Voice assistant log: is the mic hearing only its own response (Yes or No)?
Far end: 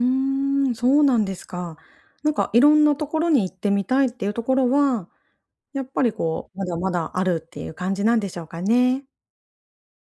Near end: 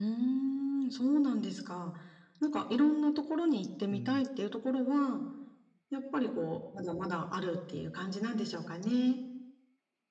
No